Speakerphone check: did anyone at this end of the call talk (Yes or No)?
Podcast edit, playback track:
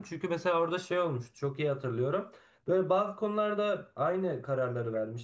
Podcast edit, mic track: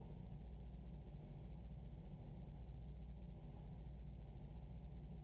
No